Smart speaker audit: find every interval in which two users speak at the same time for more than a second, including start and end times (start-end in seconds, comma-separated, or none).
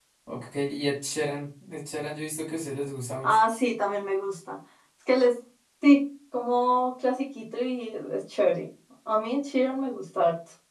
none